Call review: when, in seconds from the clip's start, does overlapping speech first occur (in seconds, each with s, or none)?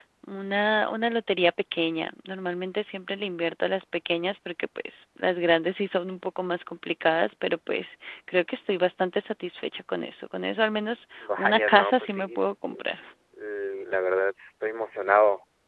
11.2 s